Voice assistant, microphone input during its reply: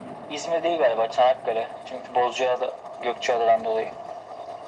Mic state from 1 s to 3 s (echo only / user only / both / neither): echo only